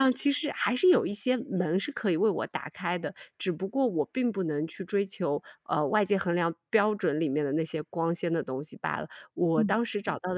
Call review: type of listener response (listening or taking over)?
listening